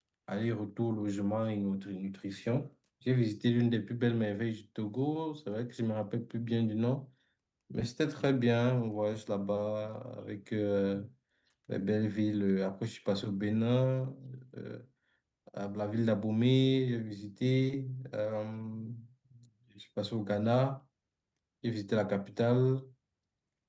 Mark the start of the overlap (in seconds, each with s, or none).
none